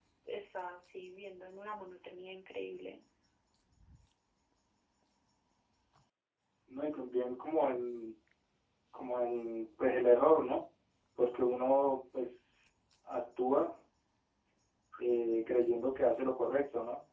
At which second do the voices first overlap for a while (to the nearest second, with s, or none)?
none